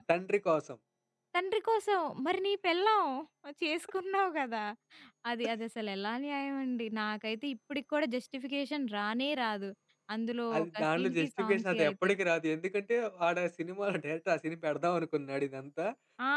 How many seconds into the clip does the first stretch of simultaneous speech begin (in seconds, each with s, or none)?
10.6 s